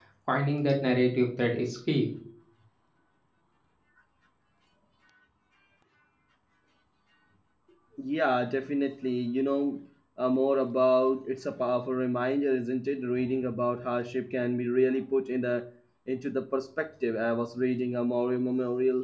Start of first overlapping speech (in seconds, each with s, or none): none